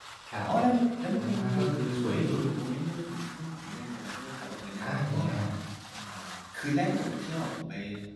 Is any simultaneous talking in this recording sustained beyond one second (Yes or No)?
No